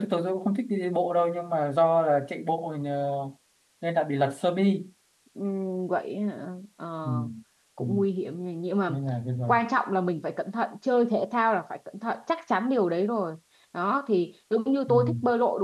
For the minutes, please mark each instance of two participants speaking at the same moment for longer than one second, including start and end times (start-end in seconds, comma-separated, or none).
none